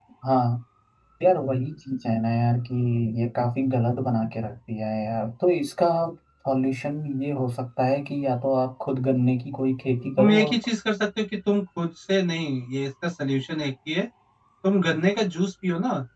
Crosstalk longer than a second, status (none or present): none